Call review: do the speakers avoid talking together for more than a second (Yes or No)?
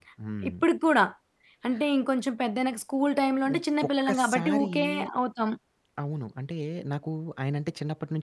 No